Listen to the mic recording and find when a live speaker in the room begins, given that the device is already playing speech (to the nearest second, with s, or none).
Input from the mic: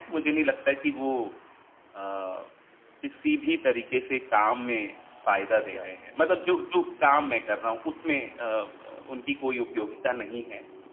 6 s